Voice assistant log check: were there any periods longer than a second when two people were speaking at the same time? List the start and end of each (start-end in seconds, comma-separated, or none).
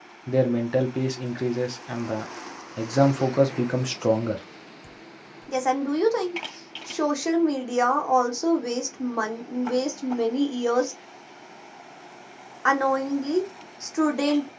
none